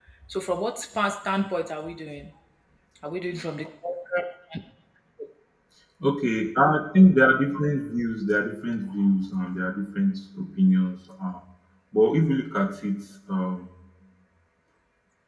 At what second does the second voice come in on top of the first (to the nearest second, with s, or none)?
none